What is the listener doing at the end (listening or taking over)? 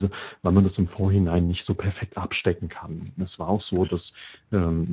listening